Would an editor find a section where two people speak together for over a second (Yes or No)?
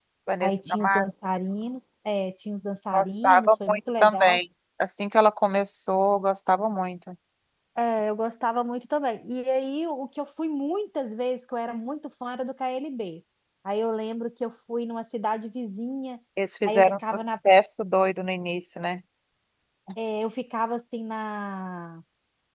Yes